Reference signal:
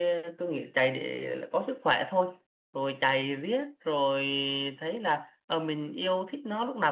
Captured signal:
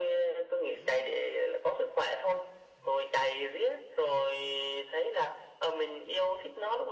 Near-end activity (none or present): none